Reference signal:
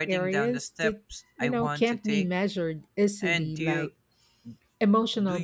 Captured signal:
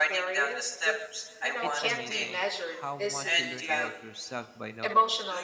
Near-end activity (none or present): present